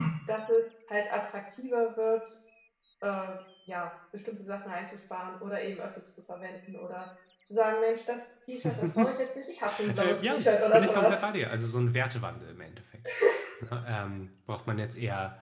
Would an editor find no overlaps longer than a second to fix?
No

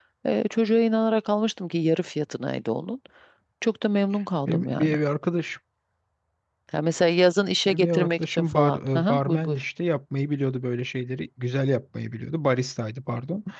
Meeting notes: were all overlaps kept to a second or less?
No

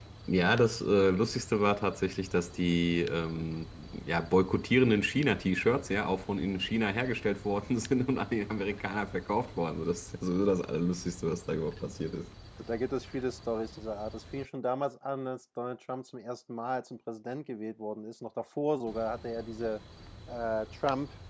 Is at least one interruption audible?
No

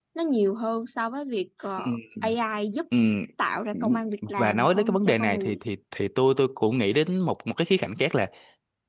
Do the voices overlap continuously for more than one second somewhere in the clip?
Yes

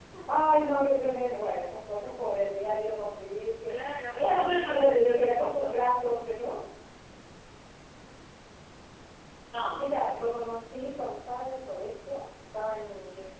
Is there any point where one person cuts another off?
Yes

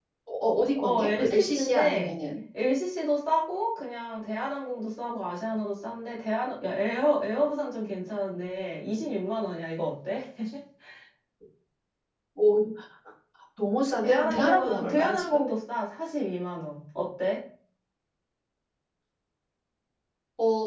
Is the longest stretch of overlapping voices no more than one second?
No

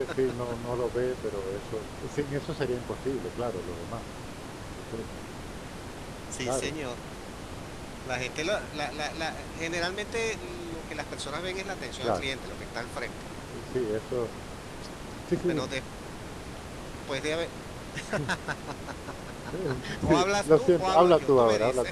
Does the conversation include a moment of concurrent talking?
Yes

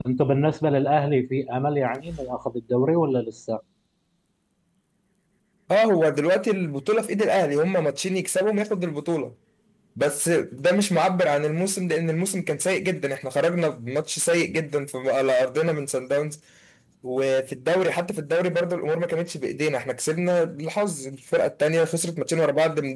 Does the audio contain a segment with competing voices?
No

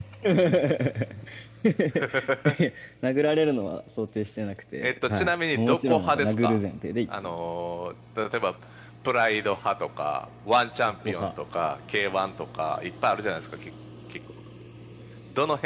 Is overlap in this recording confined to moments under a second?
No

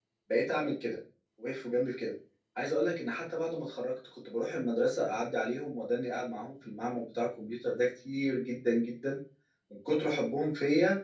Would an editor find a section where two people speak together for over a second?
No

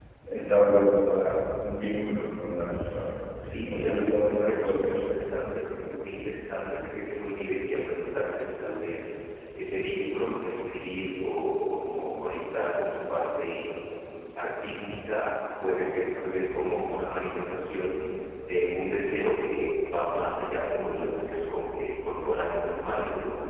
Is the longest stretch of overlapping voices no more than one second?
No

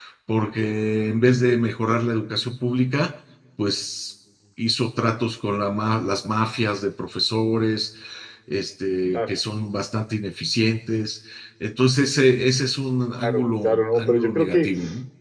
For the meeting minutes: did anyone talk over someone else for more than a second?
Yes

